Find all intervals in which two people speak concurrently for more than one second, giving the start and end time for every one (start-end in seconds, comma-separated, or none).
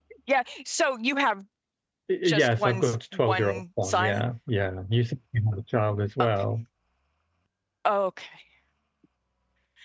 2.2-4.2